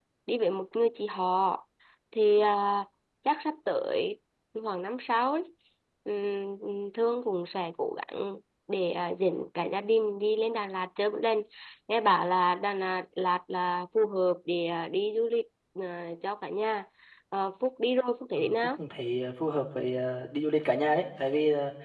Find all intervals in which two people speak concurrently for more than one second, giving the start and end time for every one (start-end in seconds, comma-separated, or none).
none